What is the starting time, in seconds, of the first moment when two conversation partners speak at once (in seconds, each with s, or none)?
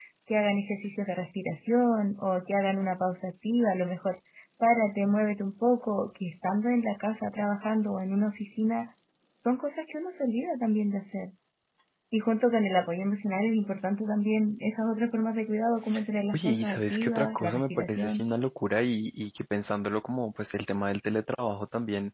16.3 s